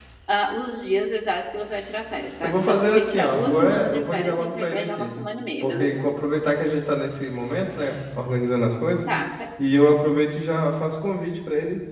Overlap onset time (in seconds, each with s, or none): 2.4 s